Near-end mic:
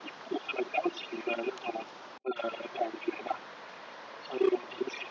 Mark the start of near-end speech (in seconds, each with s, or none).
none